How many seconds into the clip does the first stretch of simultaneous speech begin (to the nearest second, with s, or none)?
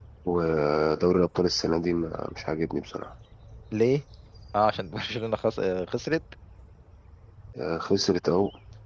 none